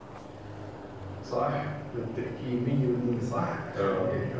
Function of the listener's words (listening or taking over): listening